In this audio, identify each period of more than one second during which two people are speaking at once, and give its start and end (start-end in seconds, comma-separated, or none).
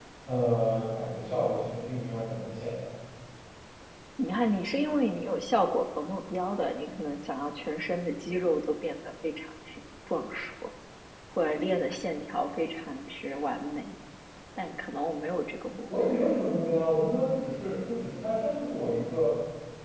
none